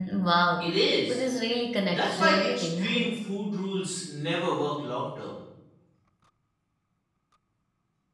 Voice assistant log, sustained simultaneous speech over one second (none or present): present